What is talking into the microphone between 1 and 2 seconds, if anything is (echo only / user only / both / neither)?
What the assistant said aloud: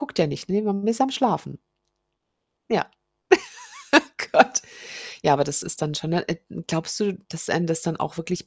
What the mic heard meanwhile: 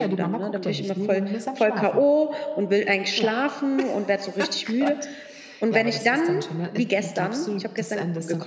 both